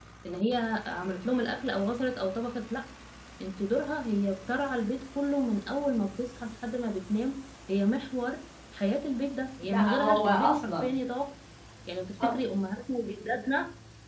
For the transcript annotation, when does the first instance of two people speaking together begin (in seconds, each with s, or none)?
9.6 s